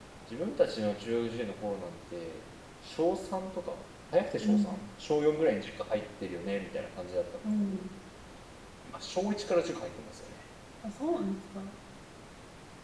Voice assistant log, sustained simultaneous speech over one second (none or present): none